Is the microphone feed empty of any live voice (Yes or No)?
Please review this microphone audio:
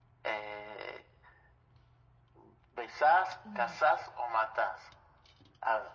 No